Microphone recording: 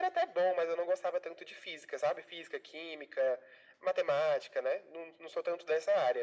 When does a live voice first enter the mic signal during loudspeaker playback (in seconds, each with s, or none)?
none